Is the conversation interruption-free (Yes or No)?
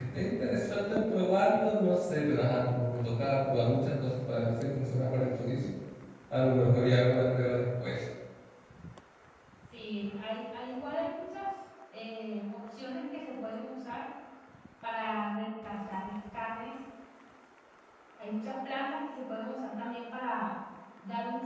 Yes